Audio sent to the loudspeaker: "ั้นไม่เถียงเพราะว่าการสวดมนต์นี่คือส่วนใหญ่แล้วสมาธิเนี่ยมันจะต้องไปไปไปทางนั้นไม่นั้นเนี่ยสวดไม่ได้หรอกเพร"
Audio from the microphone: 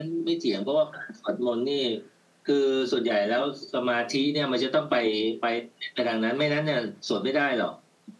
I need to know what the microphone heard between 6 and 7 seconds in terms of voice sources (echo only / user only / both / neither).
echo only